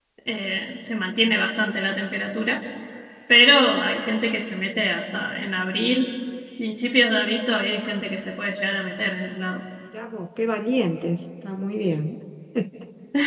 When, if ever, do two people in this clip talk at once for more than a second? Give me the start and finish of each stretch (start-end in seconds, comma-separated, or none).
none